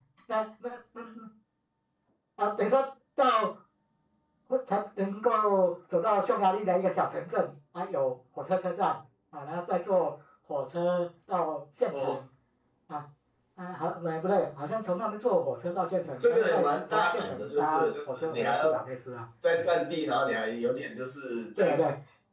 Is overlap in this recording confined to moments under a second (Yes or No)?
No